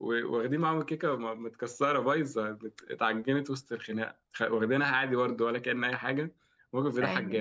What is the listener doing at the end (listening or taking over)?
listening